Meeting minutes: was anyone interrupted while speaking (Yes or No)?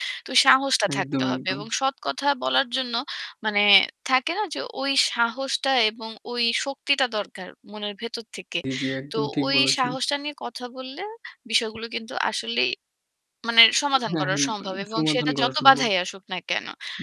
Yes